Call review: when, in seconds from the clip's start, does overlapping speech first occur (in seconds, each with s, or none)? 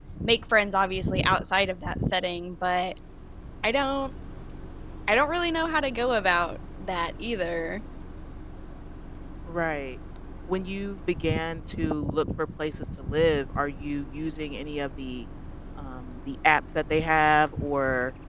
none